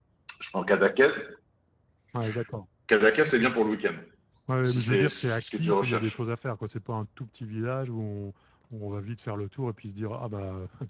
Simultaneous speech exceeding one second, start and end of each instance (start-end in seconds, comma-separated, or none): 4.6-6.2